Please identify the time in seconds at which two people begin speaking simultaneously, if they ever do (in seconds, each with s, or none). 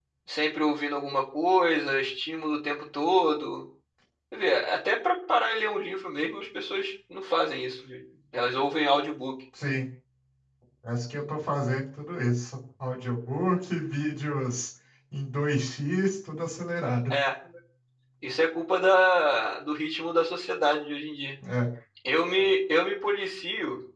none